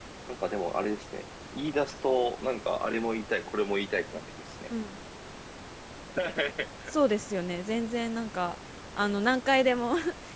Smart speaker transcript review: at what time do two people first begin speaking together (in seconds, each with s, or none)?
none